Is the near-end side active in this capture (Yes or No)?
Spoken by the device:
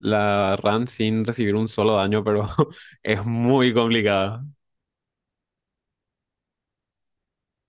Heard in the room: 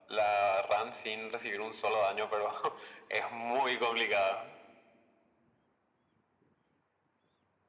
No